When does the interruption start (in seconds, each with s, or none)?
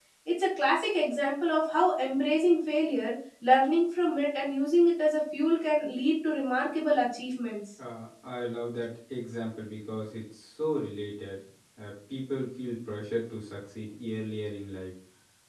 none